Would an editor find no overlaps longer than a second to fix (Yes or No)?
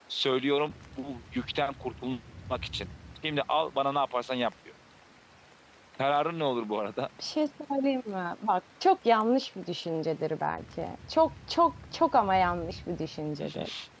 Yes